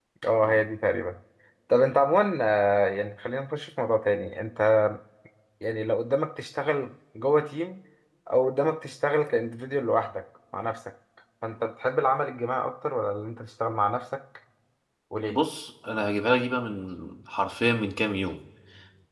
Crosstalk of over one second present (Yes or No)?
No